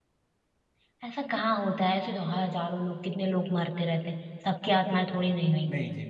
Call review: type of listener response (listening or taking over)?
taking over